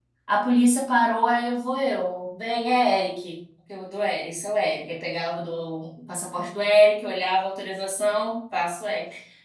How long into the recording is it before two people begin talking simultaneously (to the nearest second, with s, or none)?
none